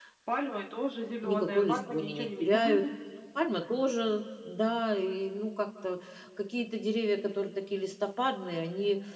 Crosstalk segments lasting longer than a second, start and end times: 1.2-2.6

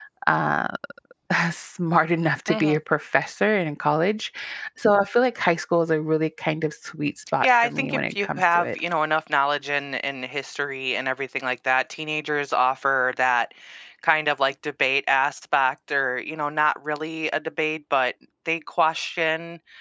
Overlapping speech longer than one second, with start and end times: 7.4-8.7

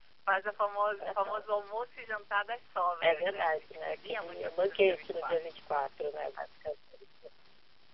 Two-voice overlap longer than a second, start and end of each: 3.0-5.4

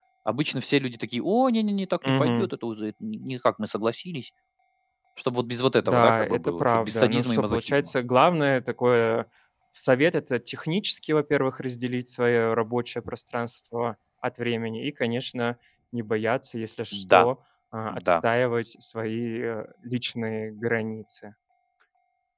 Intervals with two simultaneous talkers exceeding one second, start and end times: 5.8-7.9

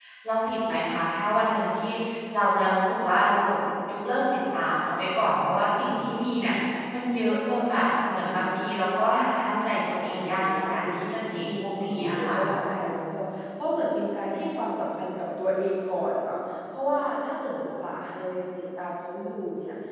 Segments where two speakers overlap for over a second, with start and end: 9.7-12.3

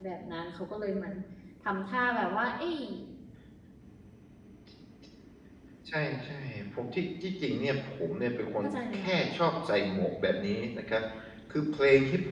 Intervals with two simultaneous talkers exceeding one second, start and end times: none

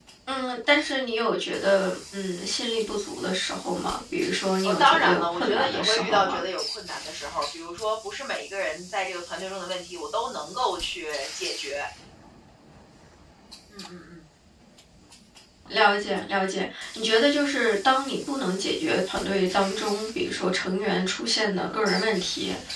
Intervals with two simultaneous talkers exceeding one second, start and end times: 4.6-6.4

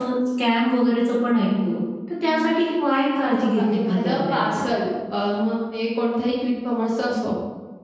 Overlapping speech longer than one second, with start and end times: 3.2-4.4

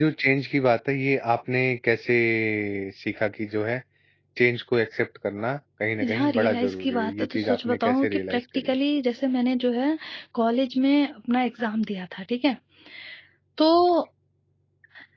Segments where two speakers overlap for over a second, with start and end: 6.0-8.7

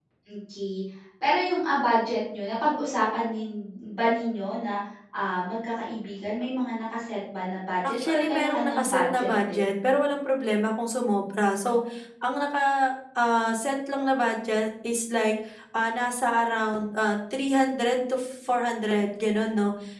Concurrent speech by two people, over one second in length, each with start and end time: 7.8-9.6

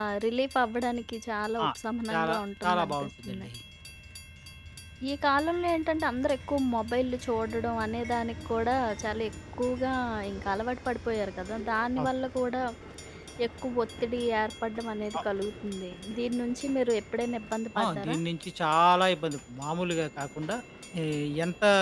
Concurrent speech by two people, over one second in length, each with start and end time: 2.1-3.5

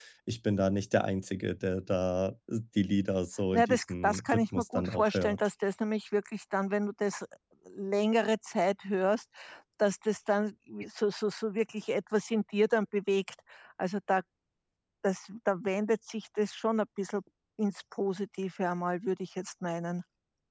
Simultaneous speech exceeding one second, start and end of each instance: 3.5-5.4

